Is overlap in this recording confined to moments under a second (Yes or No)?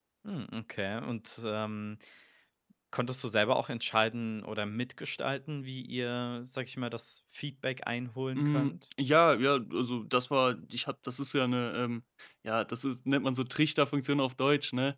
Yes